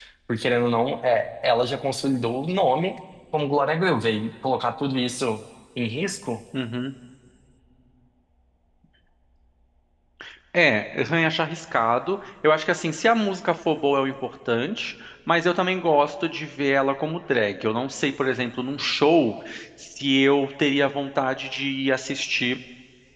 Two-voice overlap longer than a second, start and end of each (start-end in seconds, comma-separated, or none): none